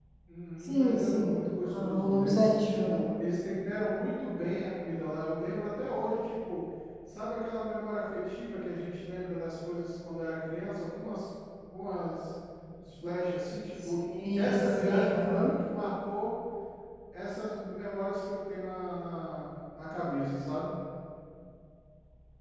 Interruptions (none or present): present